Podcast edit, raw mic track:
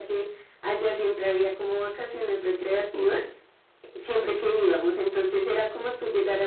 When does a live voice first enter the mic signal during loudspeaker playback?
none

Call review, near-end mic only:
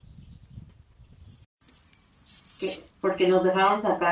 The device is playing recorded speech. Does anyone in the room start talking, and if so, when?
2.6 s

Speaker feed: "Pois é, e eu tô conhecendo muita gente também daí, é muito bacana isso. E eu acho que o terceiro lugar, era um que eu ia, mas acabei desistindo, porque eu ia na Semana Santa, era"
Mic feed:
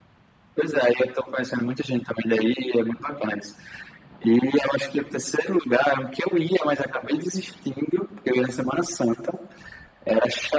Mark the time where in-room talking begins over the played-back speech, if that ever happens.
none

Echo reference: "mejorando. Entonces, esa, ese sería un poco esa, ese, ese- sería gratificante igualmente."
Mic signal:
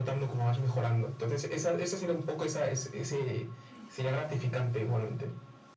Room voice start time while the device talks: none

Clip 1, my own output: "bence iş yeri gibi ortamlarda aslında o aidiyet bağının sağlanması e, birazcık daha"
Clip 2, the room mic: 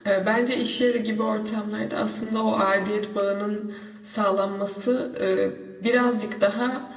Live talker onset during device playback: none

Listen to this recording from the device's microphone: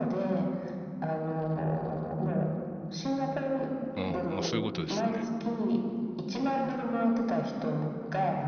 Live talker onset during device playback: 4.0 s

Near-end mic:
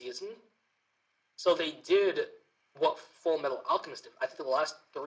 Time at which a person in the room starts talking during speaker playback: none

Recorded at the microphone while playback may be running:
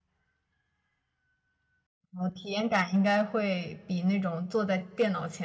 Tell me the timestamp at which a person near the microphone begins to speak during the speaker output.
2.1 s

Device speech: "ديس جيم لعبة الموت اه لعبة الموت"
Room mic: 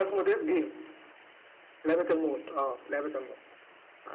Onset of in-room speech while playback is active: none

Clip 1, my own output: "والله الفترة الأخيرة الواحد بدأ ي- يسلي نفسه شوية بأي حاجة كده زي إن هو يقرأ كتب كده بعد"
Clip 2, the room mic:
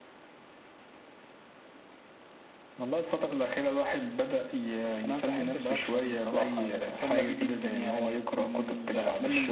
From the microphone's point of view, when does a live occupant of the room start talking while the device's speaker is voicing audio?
5.0 s

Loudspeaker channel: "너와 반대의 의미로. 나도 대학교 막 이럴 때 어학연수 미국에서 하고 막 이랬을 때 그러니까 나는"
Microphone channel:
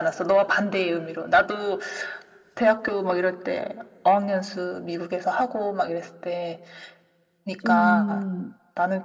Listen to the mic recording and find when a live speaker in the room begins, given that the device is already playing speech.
7.6 s

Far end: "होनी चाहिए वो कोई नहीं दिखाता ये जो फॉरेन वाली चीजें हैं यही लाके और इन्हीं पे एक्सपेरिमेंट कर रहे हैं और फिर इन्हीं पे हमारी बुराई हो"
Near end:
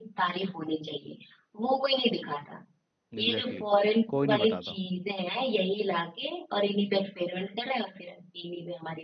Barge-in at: 3.1 s

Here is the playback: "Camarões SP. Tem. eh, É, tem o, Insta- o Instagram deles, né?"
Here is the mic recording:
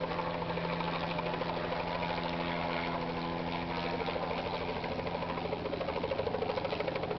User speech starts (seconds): none

